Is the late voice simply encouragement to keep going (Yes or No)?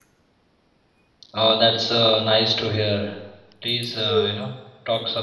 Yes